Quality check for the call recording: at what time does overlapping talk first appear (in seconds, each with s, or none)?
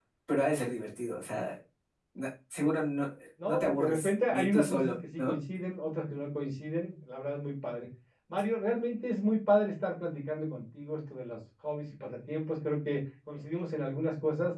3.4 s